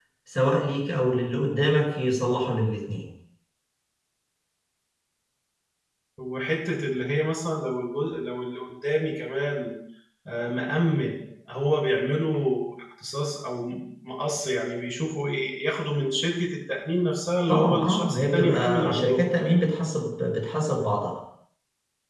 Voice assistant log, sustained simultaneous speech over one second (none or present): present